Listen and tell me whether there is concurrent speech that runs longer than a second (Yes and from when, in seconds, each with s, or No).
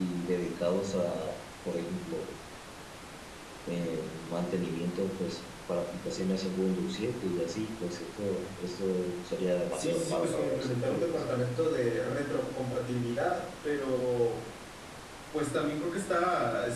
Yes, from 9.7 s